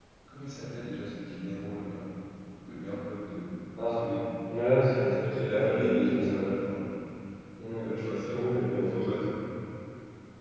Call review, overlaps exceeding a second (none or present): present